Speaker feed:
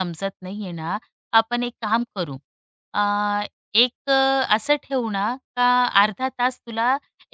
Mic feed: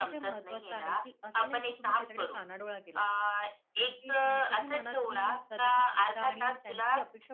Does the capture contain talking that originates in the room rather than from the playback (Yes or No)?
Yes